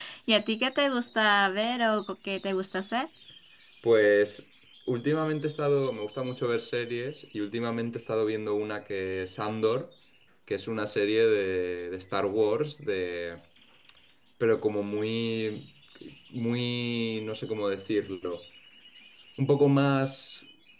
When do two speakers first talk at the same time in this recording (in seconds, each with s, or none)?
none